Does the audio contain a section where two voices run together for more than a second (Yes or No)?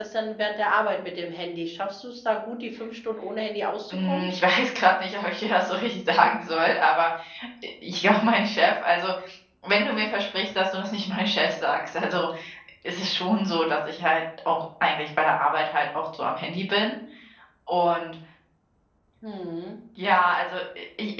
No